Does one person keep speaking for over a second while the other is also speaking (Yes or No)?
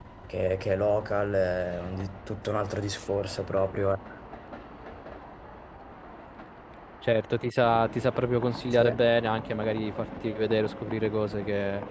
No